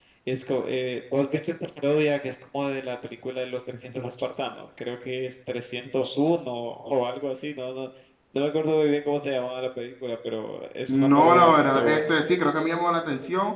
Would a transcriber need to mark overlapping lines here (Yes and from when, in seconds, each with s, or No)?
Yes, from 10.9 s